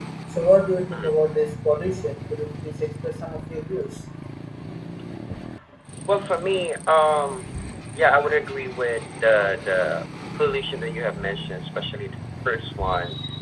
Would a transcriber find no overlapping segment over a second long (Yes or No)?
Yes